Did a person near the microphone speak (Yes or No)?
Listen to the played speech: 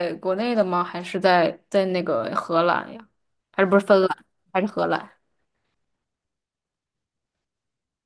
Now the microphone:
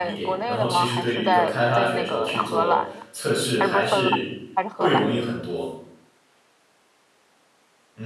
Yes